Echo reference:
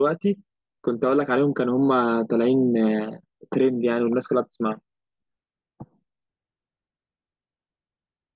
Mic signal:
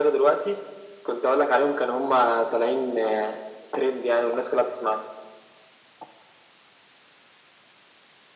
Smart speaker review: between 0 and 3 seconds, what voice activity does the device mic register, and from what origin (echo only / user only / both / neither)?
echo only